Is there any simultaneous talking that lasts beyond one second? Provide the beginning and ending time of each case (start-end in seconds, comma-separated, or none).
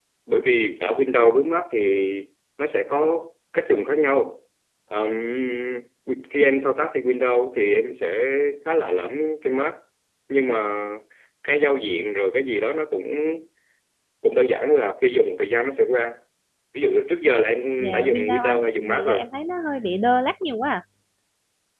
17.8-19.2